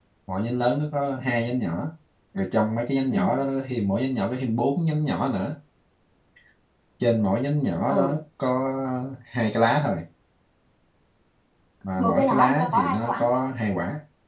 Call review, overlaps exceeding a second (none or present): present